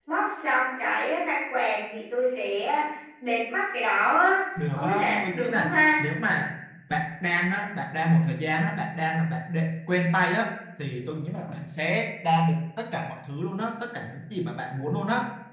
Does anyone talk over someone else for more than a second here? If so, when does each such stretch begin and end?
4.7-6.0

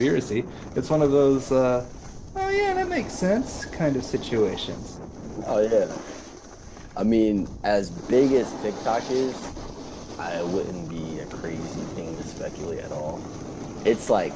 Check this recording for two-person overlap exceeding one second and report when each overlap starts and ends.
none

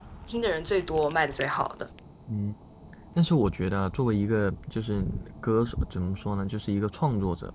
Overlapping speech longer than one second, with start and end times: none

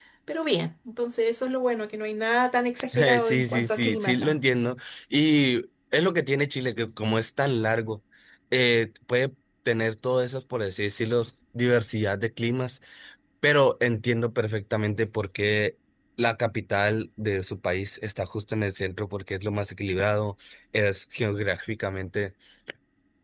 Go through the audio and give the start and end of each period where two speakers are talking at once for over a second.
2.9-4.4

